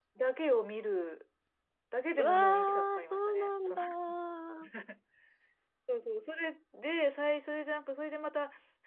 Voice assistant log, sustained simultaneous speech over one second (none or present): present